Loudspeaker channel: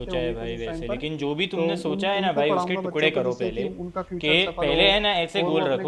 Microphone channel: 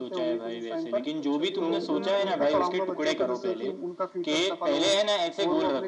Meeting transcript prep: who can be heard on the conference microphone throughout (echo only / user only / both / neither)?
both